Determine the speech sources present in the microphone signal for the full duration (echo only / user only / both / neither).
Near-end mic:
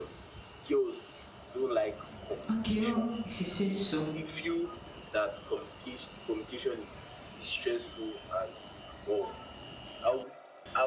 both